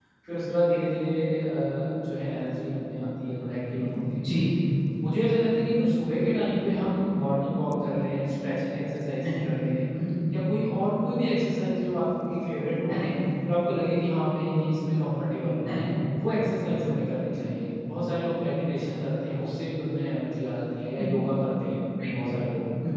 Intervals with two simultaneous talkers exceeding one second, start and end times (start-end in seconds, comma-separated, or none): none